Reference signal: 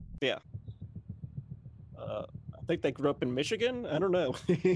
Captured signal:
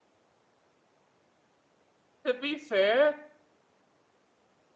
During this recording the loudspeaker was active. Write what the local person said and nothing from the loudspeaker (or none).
To be fair,